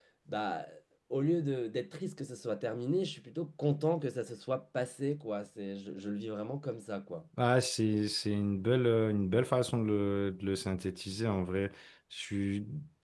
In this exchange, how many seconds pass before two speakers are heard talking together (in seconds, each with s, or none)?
none